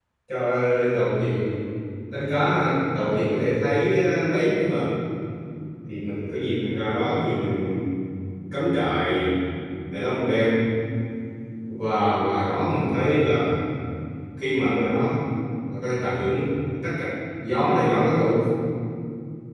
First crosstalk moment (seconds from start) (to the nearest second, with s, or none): none